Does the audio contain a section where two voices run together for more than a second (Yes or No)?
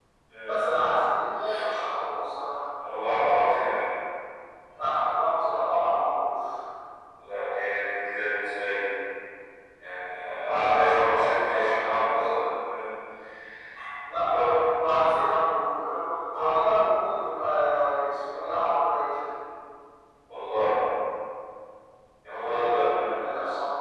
Yes